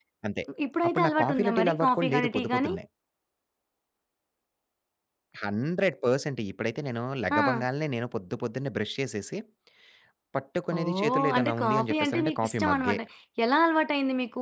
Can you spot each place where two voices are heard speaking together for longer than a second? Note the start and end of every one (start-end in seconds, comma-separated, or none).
0.9-2.7, 10.8-13.0